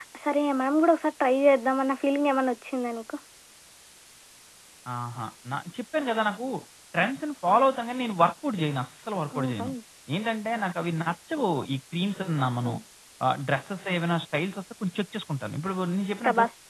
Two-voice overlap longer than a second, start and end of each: none

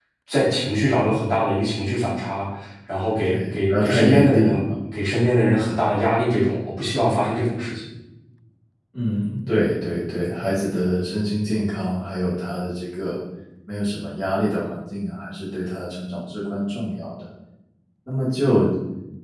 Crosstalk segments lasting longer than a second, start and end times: 3.2-4.5

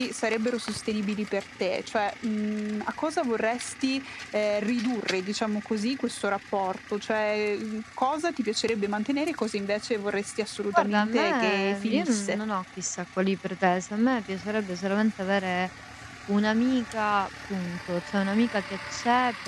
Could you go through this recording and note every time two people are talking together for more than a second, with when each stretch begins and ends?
10.7-12.4

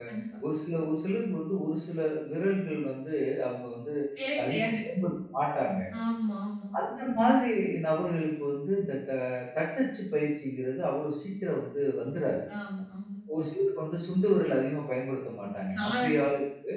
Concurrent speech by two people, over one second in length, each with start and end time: none

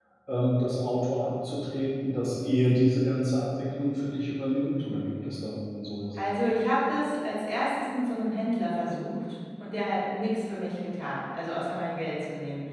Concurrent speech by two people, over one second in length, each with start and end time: none

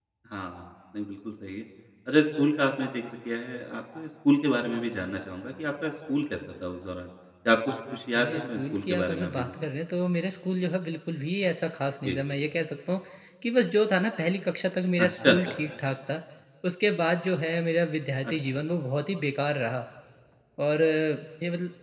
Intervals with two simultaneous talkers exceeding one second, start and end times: 8.2-9.5

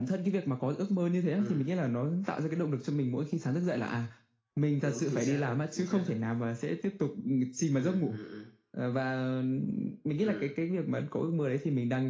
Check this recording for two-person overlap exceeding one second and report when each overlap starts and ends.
4.8-6.1

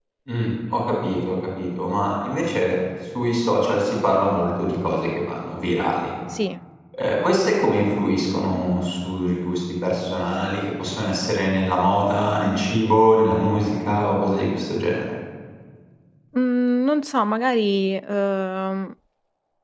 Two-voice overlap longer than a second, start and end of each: none

